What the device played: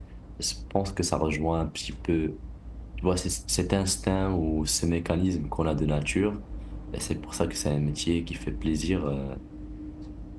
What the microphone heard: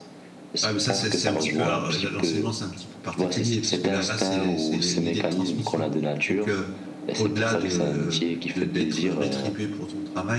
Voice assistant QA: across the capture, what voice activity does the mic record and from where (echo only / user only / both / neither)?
both